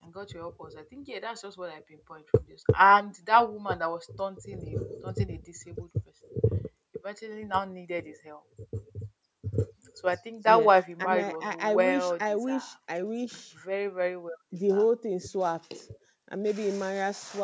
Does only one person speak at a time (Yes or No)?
No